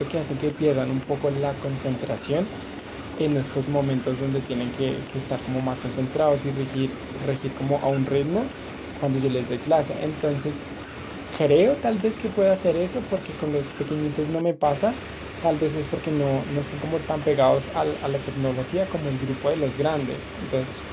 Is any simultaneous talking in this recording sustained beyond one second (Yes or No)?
No